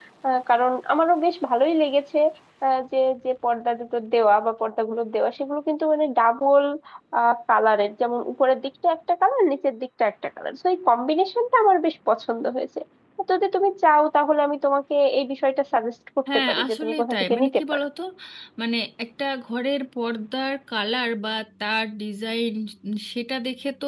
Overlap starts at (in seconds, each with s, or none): 16.3 s